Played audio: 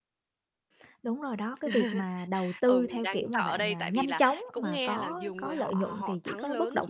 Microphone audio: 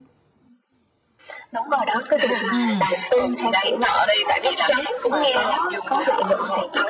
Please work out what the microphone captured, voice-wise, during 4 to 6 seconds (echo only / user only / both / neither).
echo only